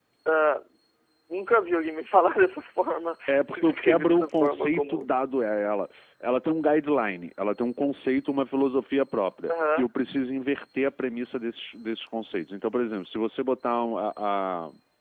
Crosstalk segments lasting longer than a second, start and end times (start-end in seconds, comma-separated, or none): 3.3-5.1